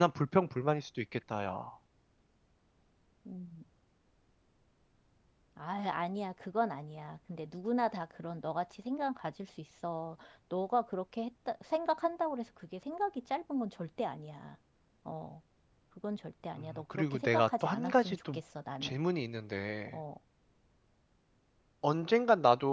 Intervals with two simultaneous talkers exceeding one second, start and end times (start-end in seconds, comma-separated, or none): 16.6-18.4